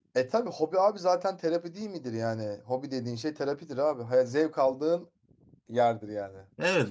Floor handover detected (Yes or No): Yes